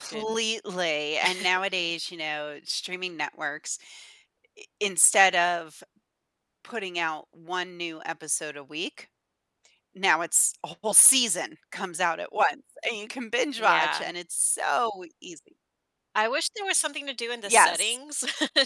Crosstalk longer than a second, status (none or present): none